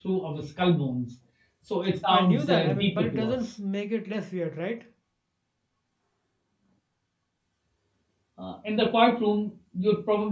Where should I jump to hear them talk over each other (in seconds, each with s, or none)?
2.1 s